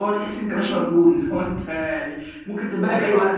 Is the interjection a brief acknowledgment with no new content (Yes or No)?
No